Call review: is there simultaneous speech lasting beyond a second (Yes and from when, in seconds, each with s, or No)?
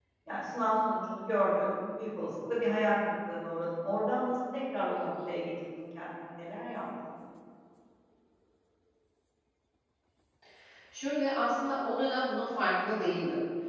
No